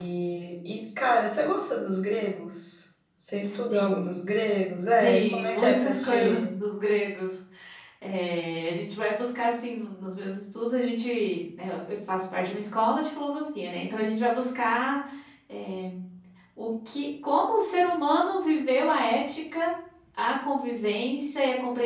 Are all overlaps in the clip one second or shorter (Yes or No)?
No